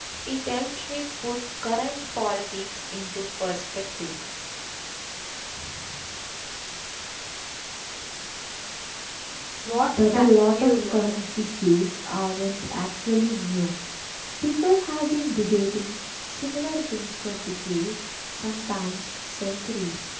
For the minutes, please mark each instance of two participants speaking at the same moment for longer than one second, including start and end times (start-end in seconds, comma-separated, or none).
9.9-11.2